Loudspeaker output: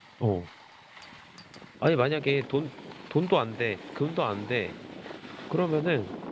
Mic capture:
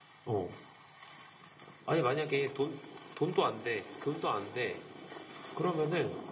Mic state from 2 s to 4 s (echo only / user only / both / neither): echo only